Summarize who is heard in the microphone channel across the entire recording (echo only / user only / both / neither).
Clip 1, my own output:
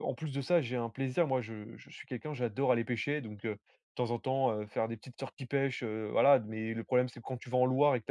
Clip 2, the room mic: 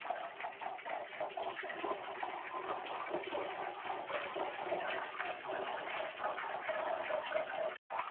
neither